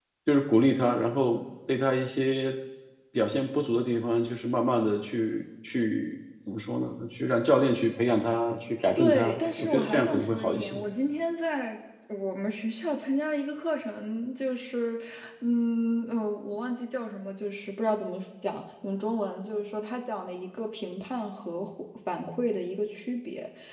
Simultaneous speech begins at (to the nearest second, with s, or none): 9 s